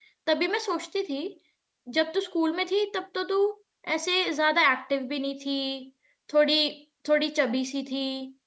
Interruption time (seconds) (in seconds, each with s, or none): none